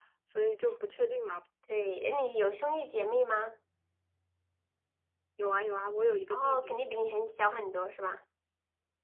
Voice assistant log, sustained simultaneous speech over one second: none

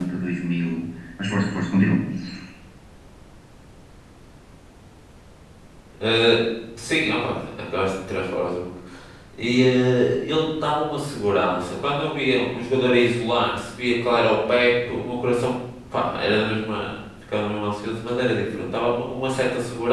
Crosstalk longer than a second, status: none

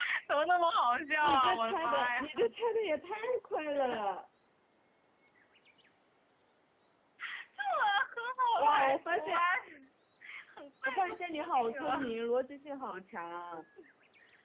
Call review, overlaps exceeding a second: present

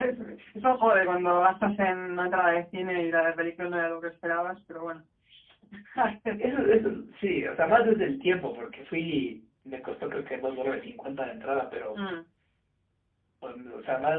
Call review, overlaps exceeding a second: none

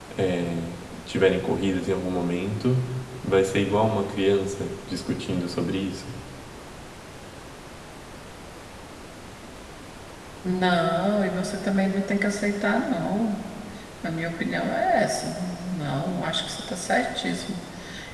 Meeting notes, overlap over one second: none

